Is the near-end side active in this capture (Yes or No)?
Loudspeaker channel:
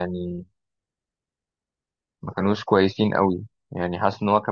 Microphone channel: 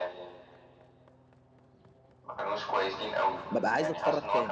Yes